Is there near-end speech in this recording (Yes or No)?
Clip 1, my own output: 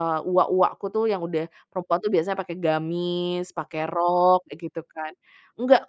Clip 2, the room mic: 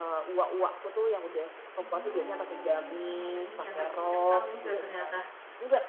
Yes